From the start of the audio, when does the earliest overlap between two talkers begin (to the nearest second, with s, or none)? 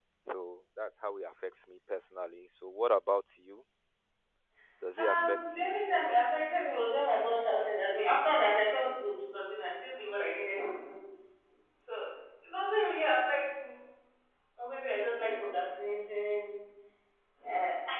5 s